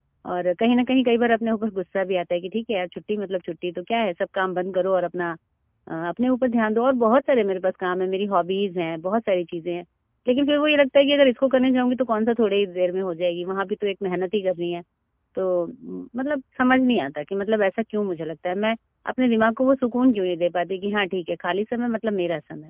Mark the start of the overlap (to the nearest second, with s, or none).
none